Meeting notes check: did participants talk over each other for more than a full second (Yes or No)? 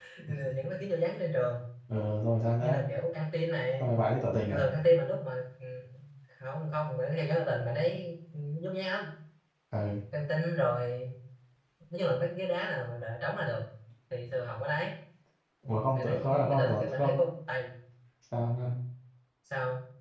Yes